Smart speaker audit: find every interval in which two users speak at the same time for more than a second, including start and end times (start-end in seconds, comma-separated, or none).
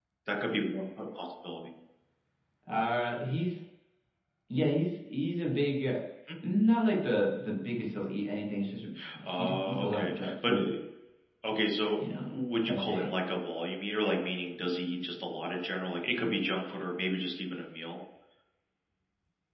9.2-10.7